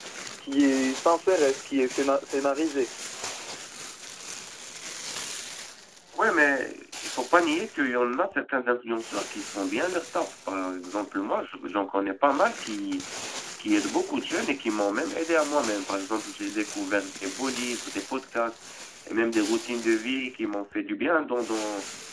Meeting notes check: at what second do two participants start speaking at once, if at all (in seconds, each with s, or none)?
none